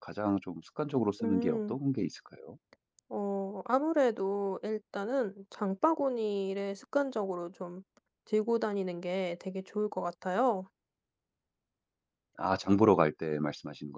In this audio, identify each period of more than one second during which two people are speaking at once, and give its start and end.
none

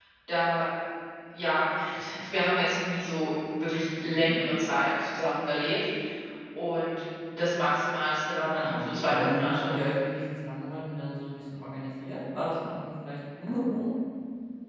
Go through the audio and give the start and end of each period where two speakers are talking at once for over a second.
8.4-9.7

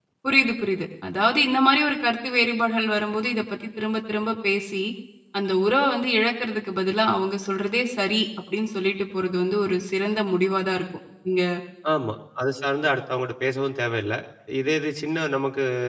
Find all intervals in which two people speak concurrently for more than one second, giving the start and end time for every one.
none

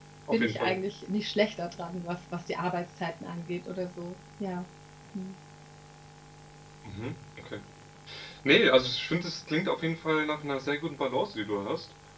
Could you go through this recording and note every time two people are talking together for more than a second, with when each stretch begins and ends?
none

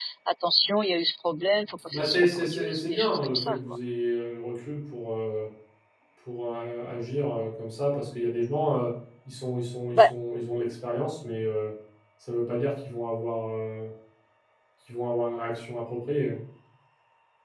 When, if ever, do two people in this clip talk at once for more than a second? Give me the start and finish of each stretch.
1.9-3.6

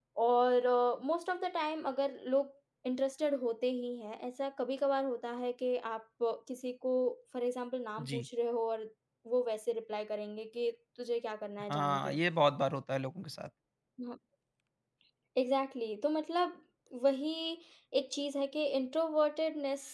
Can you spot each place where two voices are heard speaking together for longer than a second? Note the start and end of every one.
none

